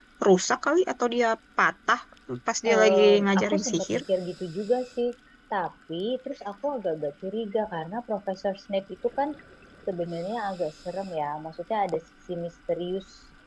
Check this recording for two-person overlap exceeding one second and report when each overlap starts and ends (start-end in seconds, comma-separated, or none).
2.7-4.0